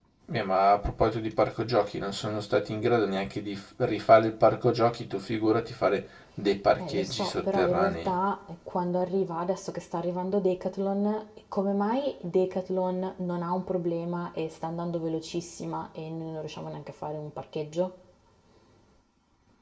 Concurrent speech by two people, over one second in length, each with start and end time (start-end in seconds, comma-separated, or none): 6.8-8.1